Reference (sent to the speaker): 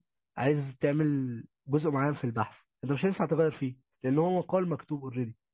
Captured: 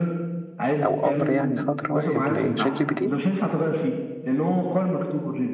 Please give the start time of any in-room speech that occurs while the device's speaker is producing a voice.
0.8 s

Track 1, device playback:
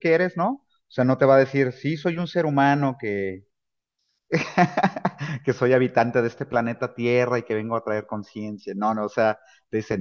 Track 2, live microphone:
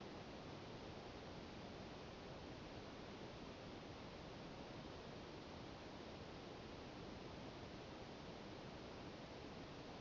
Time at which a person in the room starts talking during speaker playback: none

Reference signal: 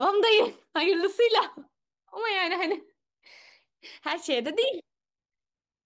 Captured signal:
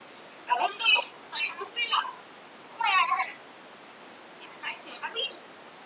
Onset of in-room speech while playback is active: none

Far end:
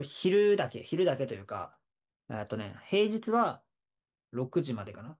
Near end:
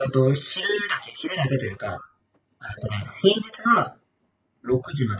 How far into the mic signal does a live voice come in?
none

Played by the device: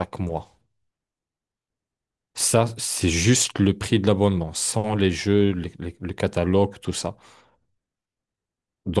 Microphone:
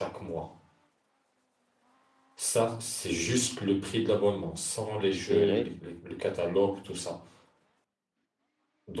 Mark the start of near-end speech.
5.1 s

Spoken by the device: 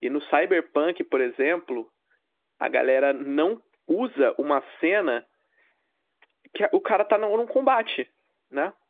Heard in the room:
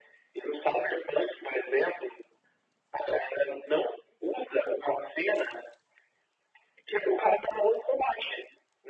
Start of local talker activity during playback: none

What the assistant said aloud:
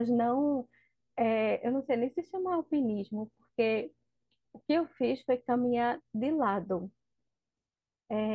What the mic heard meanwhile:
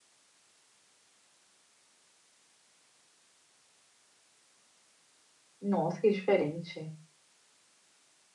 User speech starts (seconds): 5.6 s

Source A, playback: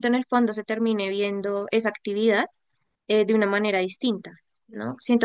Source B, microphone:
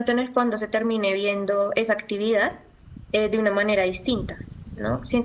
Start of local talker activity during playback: none

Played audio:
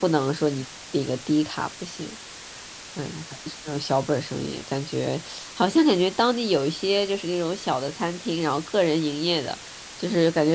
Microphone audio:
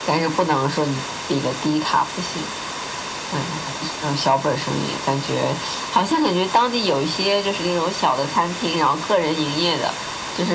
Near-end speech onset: none

